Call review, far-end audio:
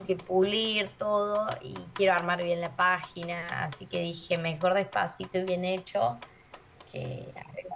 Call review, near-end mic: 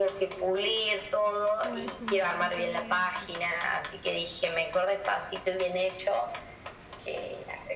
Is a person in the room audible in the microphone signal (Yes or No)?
Yes